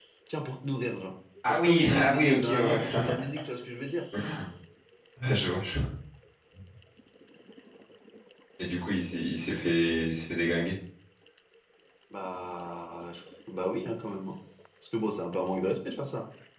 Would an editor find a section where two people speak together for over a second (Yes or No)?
Yes